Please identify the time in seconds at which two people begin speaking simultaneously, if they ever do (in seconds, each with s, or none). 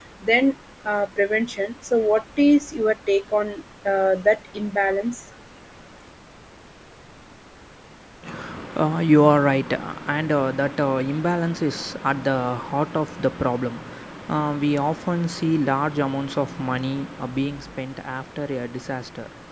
none